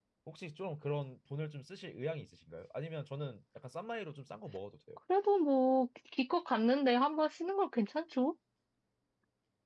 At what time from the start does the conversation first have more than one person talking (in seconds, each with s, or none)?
none